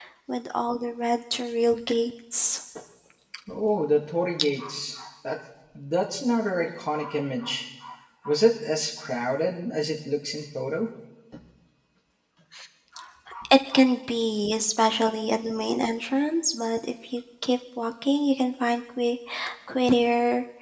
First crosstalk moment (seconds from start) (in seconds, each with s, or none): none